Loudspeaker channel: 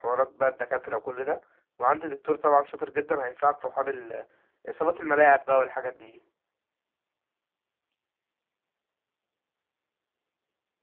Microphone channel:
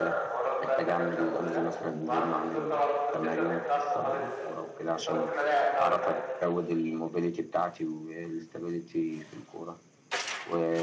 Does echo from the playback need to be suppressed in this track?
Yes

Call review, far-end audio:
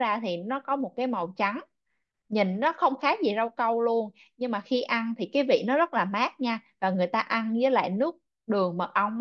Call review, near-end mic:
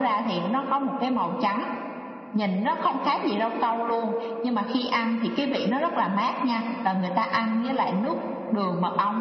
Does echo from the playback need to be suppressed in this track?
Yes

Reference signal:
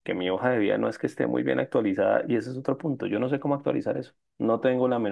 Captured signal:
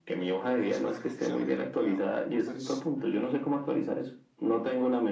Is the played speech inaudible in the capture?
No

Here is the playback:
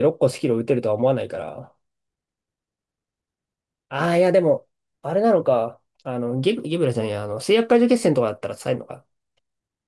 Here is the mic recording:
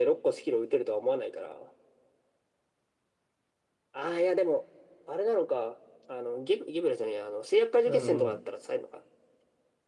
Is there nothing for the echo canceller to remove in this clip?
No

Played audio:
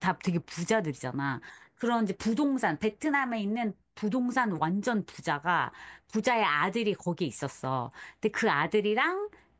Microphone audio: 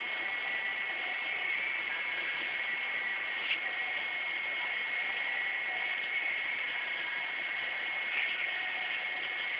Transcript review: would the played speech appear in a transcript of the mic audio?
No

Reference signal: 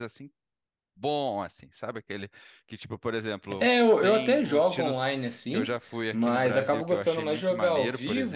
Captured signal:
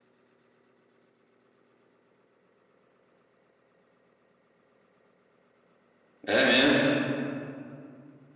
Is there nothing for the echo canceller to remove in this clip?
Yes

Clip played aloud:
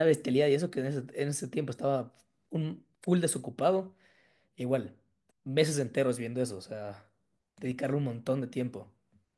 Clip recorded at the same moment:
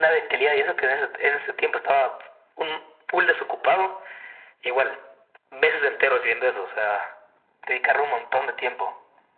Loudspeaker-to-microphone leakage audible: Yes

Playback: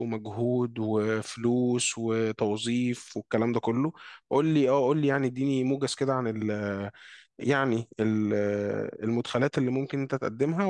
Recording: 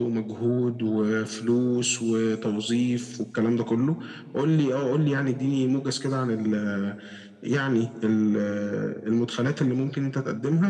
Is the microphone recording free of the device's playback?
No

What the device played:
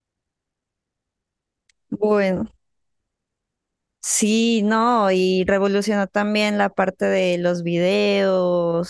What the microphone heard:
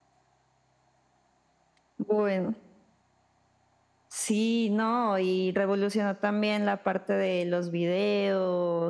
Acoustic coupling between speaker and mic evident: Yes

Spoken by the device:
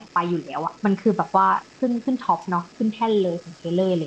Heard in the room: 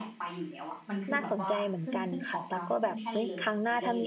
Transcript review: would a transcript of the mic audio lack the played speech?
No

